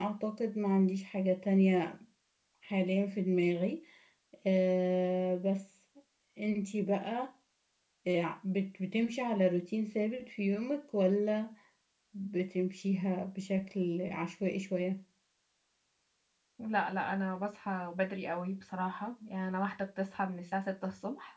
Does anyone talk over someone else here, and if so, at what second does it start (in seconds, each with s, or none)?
none